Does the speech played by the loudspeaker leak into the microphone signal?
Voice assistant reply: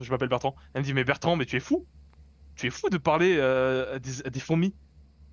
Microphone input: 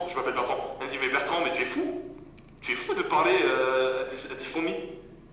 Yes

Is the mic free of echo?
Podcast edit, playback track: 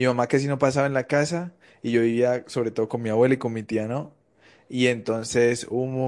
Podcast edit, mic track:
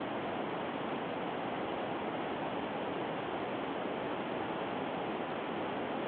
Yes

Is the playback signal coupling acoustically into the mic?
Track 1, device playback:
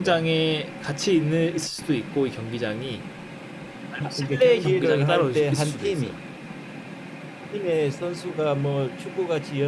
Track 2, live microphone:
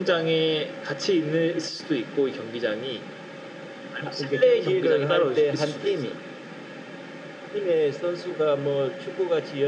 Yes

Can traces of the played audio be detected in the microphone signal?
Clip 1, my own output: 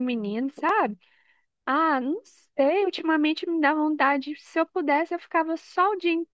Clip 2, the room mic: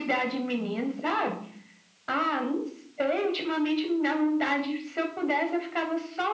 Yes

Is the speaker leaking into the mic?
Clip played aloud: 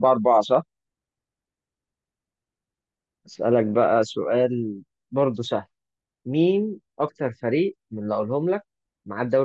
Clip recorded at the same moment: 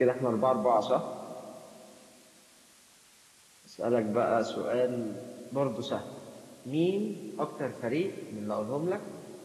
Yes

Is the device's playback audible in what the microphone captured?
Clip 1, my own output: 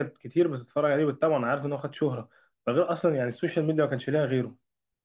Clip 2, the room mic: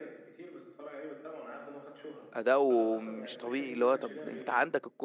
Yes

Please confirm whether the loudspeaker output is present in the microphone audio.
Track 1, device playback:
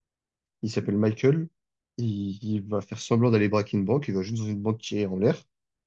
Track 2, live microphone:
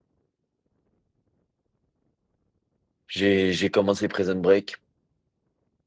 No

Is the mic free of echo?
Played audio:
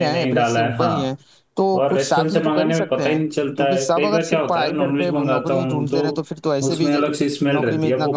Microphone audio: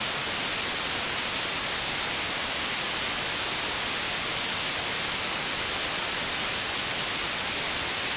Yes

